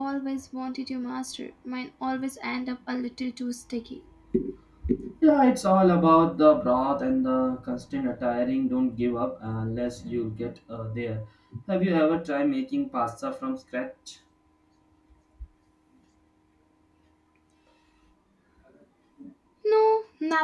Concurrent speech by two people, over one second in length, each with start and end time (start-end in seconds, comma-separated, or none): none